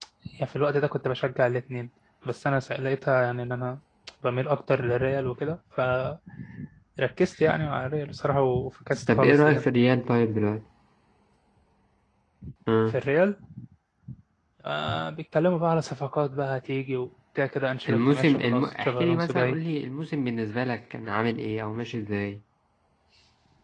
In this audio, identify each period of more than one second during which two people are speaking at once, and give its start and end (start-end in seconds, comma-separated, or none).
17.9-19.6